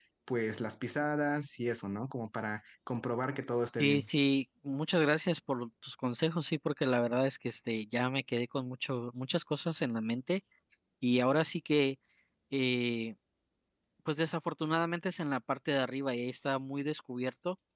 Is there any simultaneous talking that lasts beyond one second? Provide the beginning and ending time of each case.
none

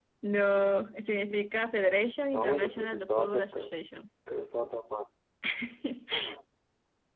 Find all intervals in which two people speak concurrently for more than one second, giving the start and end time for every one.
2.3-3.7

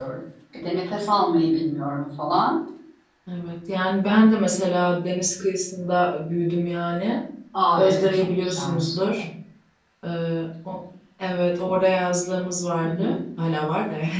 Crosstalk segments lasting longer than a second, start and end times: 7.8-9.2

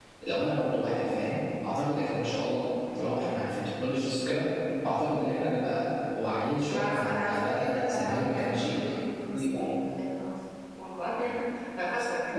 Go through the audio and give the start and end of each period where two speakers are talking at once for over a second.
6.7-8.8

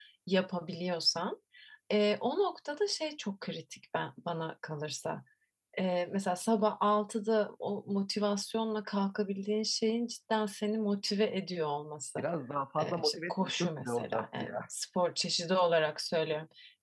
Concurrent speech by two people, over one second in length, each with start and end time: 12.8-14.6

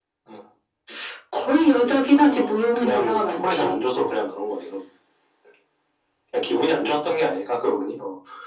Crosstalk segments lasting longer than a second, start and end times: 1.5-3.7

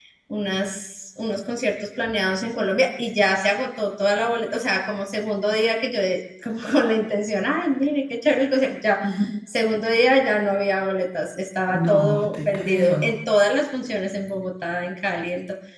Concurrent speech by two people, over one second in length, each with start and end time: 11.8-13.2

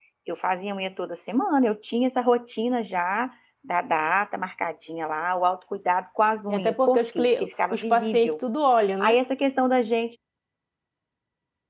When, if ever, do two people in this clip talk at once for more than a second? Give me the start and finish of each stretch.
6.5-8.3

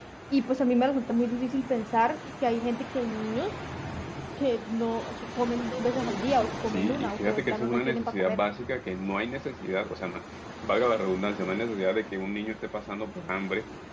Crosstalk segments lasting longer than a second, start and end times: 6.7-8.4

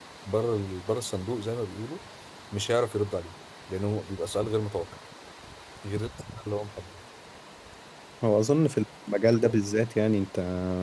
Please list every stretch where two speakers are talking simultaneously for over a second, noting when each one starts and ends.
none

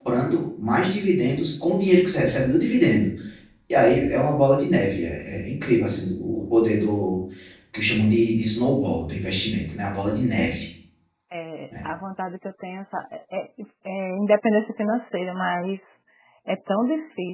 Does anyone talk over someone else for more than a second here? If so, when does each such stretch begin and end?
none

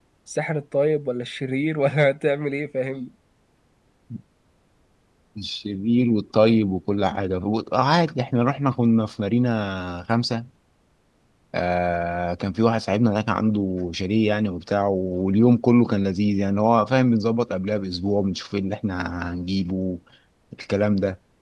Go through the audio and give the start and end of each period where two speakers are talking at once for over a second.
none

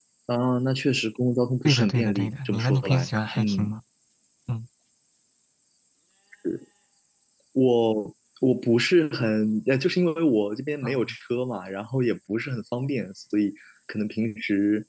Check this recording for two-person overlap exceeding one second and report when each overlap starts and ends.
1.6-3.7

